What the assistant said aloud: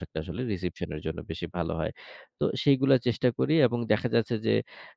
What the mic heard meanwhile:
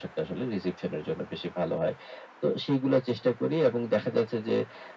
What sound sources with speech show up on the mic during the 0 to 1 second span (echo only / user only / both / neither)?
echo only